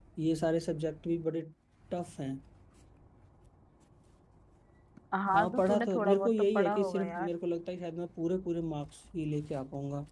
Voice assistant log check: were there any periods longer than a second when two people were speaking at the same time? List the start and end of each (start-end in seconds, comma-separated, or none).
5.3-7.3